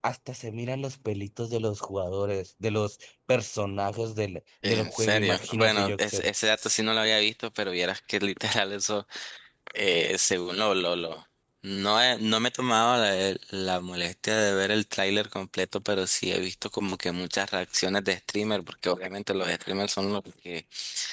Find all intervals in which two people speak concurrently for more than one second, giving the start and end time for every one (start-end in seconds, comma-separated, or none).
4.6-6.3